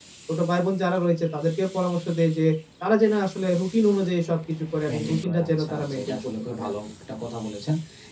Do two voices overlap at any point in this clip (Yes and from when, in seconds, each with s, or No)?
Yes, from 4.9 s